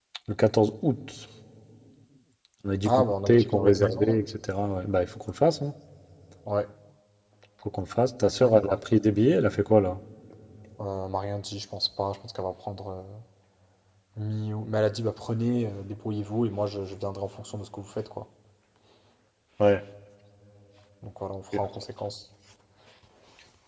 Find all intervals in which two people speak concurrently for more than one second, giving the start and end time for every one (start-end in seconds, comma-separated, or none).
2.8-4.2